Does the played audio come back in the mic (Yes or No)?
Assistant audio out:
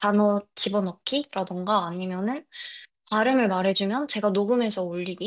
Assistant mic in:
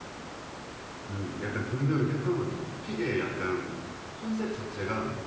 No